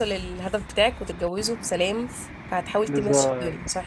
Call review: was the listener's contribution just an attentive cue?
No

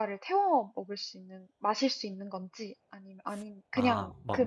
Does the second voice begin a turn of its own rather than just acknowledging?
Yes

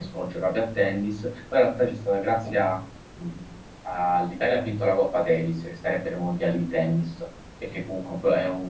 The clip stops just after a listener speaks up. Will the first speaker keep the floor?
Yes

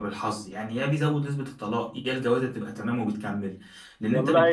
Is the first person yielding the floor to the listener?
Yes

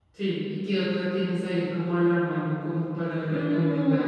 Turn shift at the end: Yes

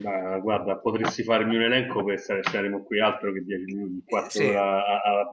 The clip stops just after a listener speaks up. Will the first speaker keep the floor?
Yes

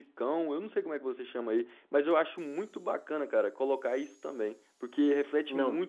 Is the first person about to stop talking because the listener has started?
No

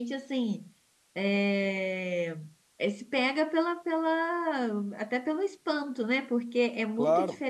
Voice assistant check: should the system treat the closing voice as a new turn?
No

